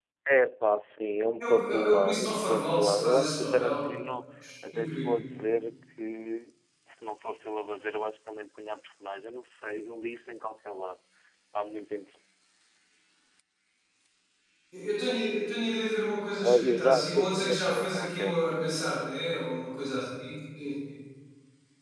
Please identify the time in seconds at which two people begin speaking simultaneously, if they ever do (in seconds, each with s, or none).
1.4 s